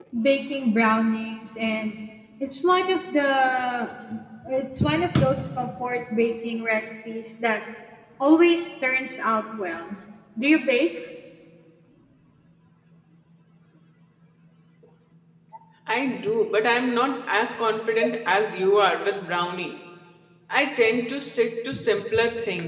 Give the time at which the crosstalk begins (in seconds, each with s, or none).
none